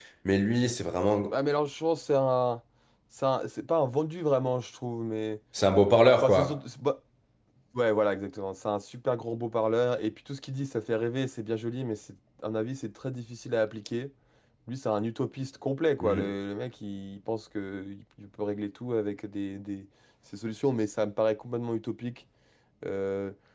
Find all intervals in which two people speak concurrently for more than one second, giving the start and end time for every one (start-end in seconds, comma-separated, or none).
none